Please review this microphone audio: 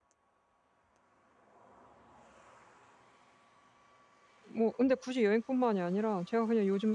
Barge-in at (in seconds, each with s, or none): 4.6 s